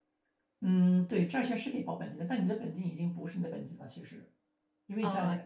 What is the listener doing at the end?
listening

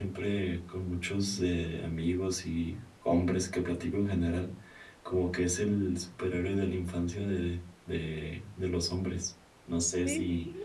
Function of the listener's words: taking over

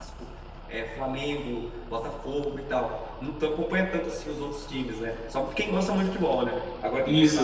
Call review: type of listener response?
listening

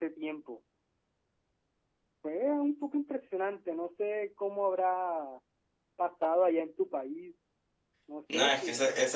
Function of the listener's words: taking over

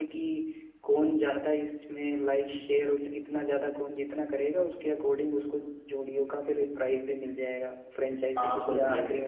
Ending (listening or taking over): taking over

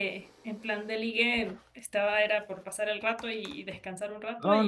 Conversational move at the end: taking over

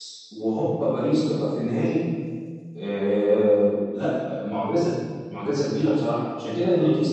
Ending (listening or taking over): taking over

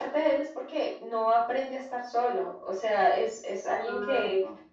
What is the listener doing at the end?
listening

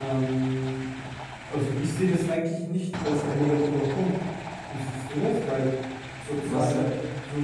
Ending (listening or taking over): listening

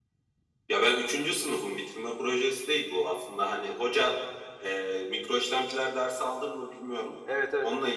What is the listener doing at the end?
taking over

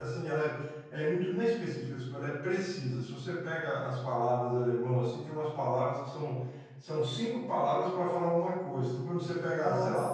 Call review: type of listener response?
listening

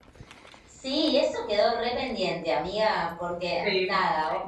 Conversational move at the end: listening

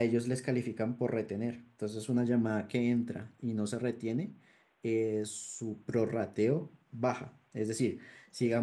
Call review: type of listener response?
taking over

